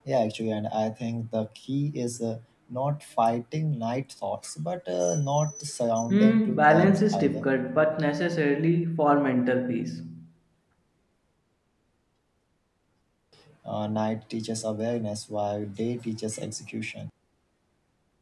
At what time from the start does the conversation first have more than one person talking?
6.1 s

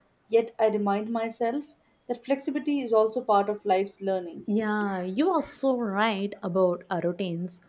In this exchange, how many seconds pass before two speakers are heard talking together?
none

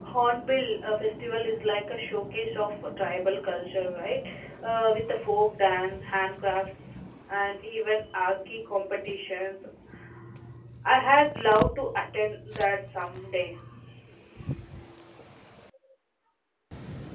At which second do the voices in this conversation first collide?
none

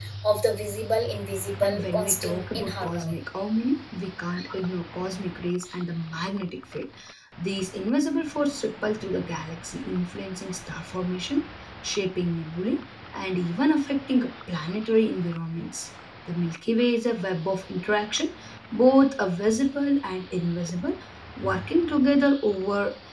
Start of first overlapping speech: 1.6 s

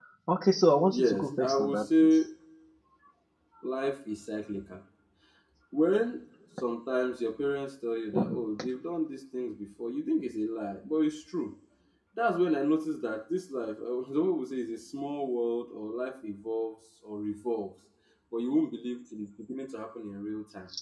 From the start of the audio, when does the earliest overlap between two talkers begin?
0.9 s

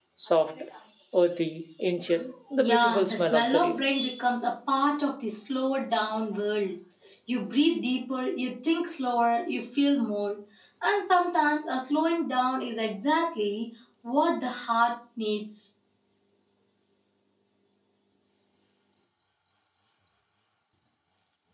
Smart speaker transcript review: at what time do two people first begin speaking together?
2.6 s

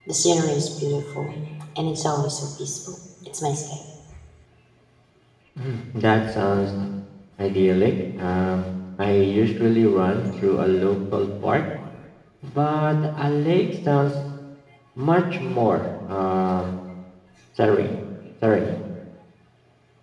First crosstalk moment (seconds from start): none

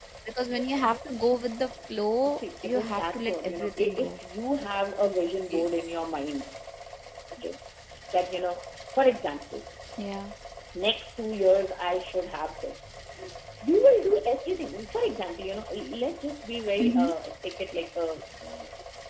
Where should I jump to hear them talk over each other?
2.3 s

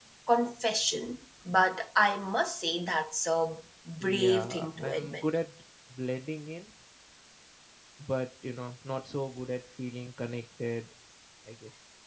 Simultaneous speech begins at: 4.0 s

